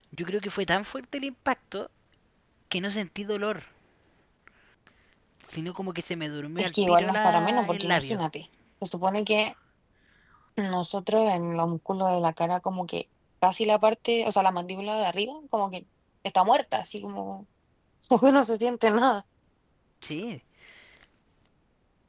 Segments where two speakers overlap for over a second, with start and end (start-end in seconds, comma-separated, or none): 6.6-8.2